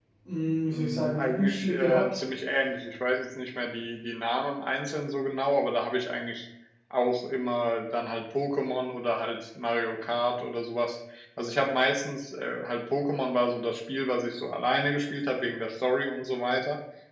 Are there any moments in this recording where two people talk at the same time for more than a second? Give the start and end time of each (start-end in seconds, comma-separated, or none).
0.7-2.2